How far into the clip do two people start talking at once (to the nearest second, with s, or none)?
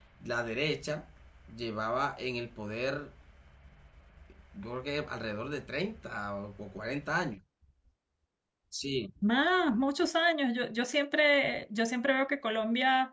none